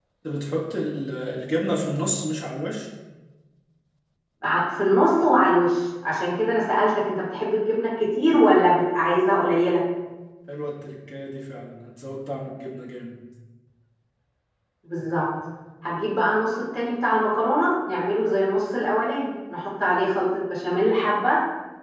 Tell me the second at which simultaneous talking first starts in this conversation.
none

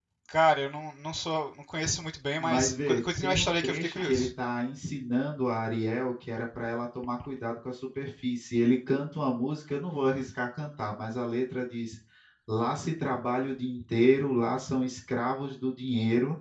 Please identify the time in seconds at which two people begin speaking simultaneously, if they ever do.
2.4 s

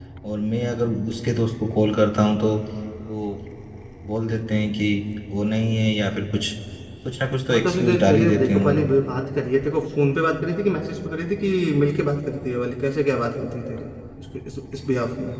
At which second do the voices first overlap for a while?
7.5 s

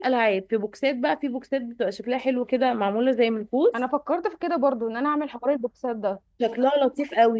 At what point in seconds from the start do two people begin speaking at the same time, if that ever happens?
none

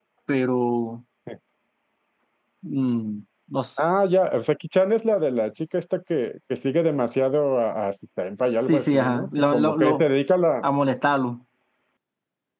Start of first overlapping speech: 8.7 s

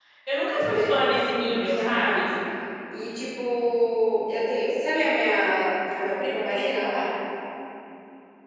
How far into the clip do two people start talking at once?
0.5 s

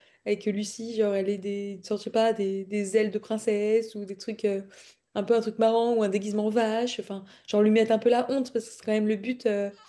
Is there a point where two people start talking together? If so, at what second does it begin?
none

